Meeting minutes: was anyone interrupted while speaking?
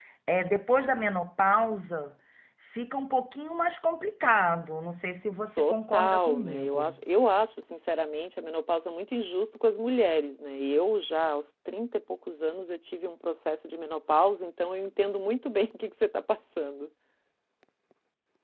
Yes, from 5.6 s

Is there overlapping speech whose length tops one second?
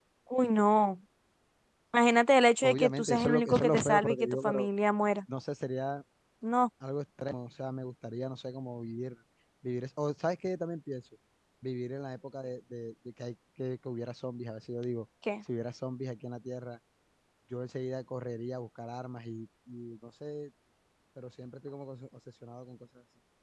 Yes, from 2.6 s

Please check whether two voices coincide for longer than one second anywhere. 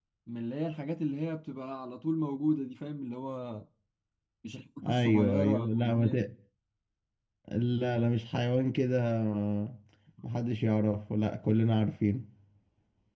Yes, from 4.9 s

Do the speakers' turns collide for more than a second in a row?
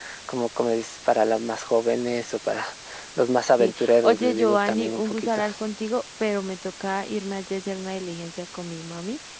Yes, from 3.6 s

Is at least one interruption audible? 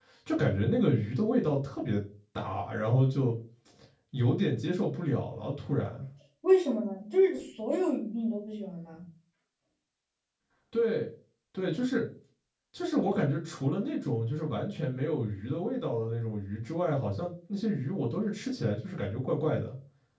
No

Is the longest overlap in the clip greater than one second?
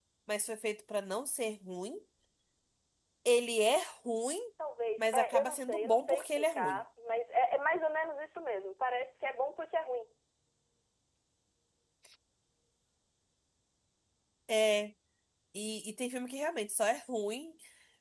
Yes, from 5.0 s

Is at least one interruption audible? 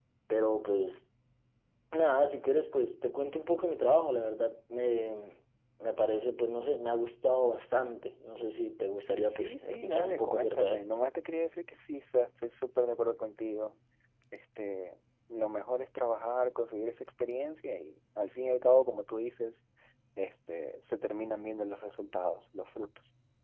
Yes, from 9.3 s

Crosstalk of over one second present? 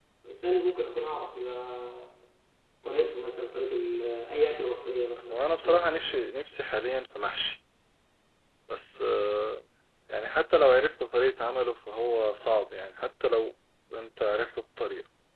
No

